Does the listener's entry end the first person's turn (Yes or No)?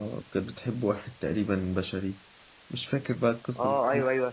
Yes